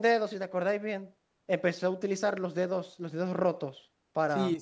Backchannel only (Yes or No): No